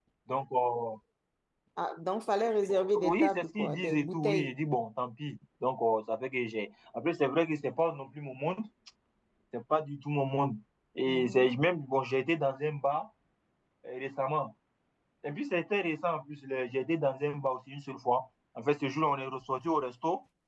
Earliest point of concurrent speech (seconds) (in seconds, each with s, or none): 3.0 s